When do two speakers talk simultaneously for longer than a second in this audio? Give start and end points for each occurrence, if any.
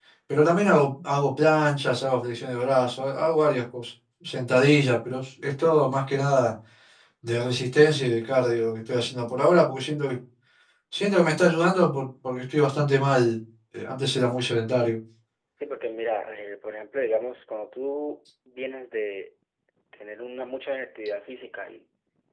none

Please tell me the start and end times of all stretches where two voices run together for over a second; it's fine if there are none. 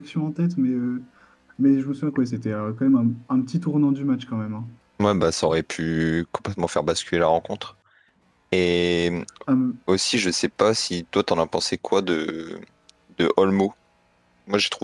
none

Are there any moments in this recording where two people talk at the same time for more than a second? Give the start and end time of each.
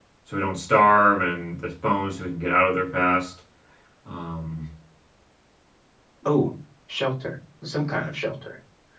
none

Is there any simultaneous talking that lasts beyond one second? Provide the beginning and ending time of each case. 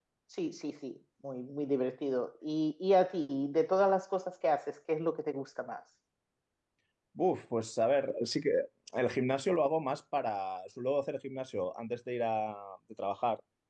none

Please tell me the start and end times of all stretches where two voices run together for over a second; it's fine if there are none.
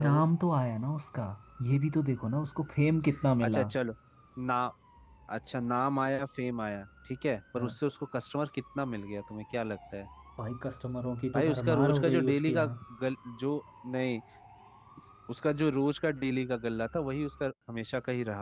11.3-12.7

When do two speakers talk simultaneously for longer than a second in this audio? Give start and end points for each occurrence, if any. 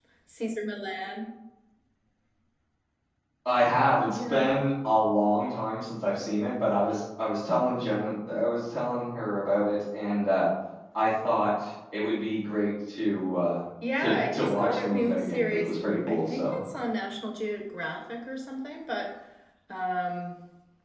14.0-16.6

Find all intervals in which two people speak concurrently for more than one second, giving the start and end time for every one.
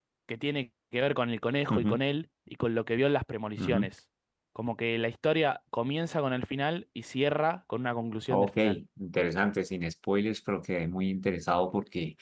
none

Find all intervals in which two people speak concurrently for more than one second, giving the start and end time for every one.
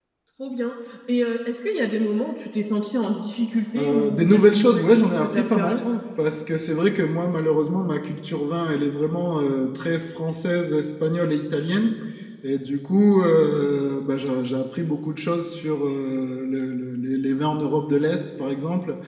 3.8-5.9

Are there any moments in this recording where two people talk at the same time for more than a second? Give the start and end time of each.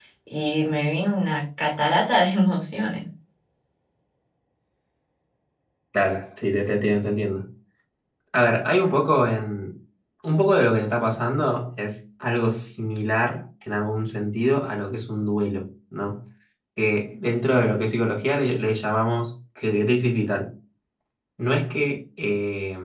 none

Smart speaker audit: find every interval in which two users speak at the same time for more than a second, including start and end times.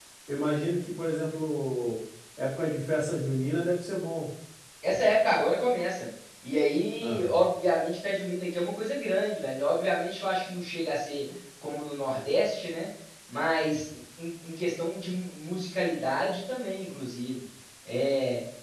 none

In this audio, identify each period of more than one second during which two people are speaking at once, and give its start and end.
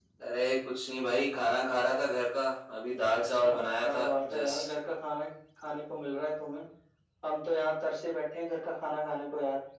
3.1-4.7

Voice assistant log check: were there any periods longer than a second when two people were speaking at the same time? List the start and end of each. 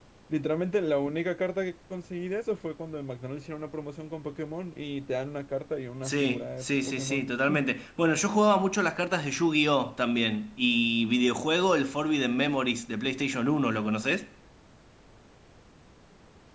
6.0-7.3

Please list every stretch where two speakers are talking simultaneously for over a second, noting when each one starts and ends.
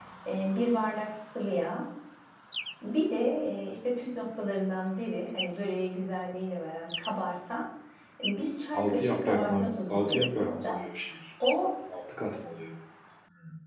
8.7-10.7

